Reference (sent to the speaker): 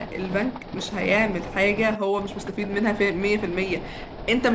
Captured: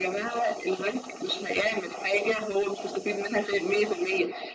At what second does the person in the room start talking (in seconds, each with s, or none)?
none